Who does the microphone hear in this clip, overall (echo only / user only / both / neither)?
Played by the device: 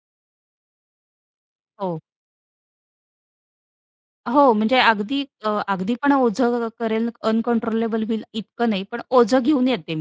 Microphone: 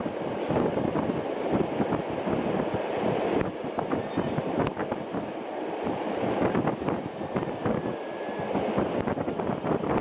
neither